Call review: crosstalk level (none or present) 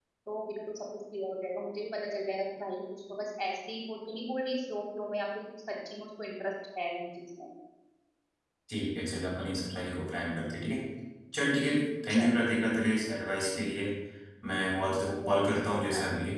present